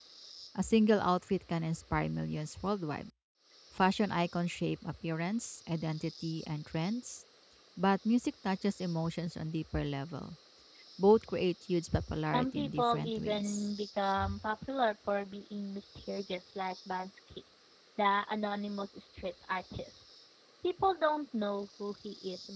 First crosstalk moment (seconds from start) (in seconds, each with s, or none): 12.2 s